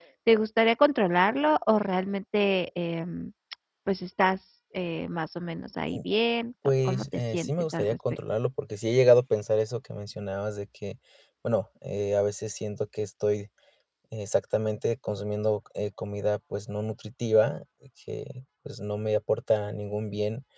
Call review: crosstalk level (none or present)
present